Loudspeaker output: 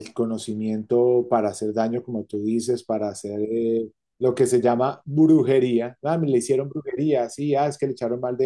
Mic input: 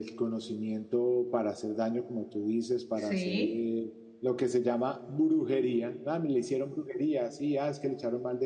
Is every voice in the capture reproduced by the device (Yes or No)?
No